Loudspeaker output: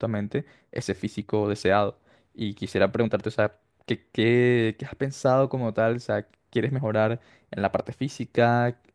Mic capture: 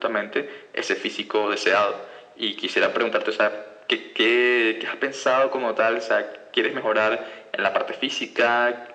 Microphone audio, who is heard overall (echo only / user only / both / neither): echo only